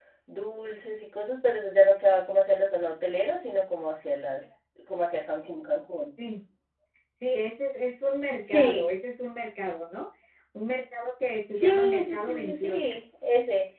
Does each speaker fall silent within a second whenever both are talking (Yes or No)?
No